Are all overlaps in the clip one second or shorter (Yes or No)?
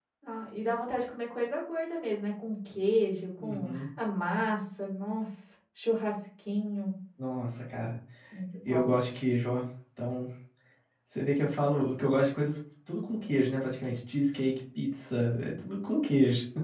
Yes